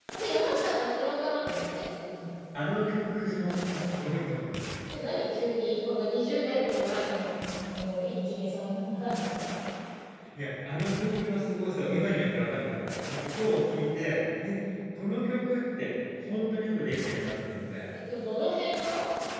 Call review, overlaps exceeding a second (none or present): none